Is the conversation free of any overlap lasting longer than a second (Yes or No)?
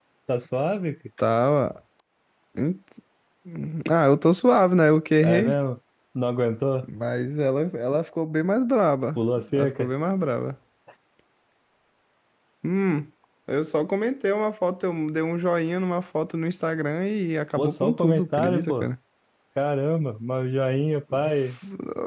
No